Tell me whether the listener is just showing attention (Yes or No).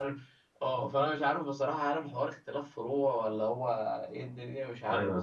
No